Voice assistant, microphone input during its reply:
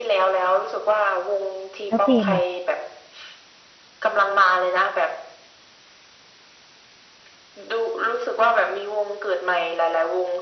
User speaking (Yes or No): Yes